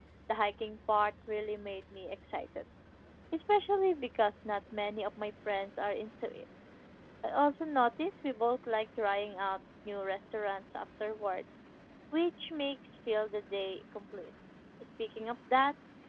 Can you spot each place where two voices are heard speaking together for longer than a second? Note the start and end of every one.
none

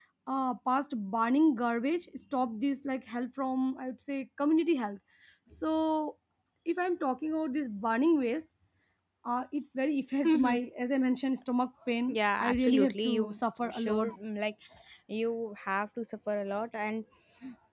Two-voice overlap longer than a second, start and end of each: 12.1-14.1

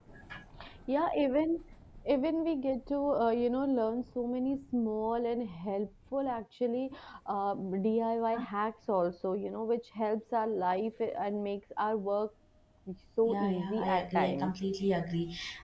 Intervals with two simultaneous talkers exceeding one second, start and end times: 13.3-14.5

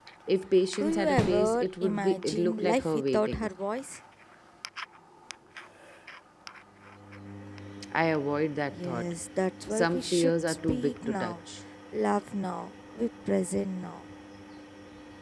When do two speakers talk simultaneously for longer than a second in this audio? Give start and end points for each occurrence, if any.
0.8-3.5, 9.7-11.3

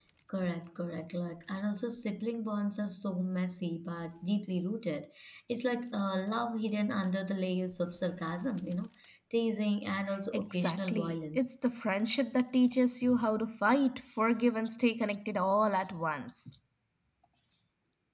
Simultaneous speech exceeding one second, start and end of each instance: 10.3-11.5

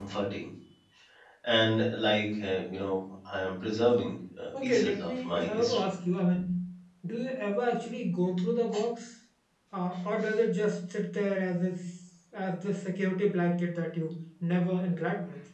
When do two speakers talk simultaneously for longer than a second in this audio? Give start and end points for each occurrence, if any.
4.6-5.9

